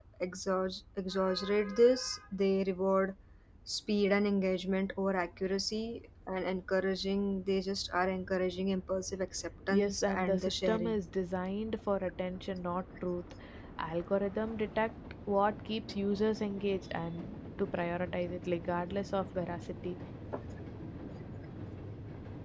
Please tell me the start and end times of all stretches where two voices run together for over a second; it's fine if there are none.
9.7-10.9

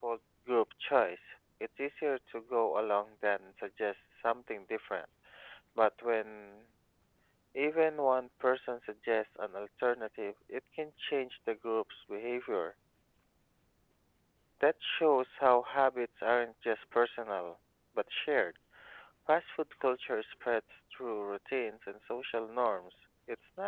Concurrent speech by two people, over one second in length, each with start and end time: none

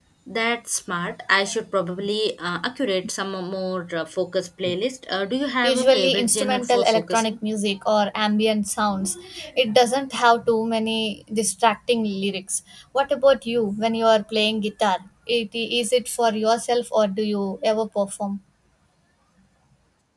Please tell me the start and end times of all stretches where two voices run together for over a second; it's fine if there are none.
5.6-7.3

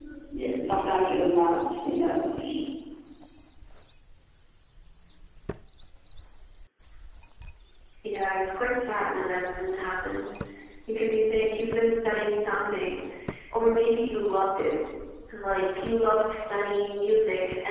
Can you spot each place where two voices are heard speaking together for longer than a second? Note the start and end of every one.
none

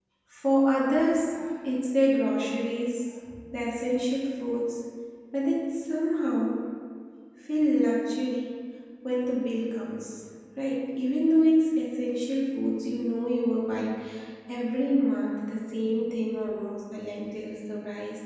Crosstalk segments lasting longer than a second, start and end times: none

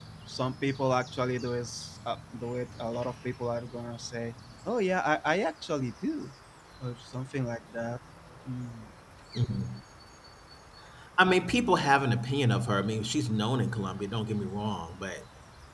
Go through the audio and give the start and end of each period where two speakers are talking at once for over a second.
none

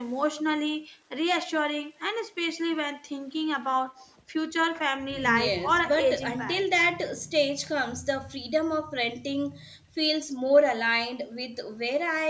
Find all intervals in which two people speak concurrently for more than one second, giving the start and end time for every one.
5.2-6.6

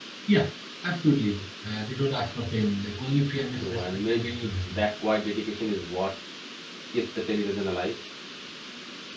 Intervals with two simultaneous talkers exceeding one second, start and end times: 3.5-4.8

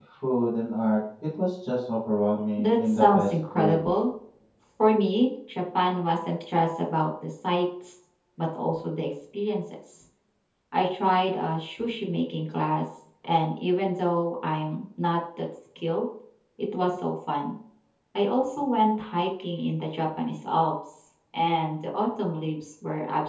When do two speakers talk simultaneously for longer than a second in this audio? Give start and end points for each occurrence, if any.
2.6-3.8

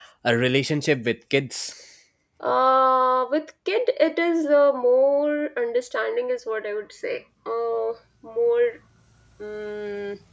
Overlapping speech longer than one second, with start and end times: none

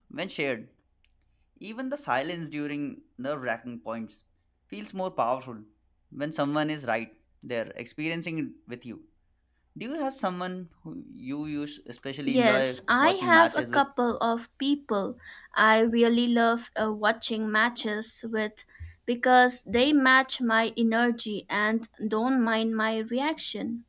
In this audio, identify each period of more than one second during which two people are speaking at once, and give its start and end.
12.3-13.8

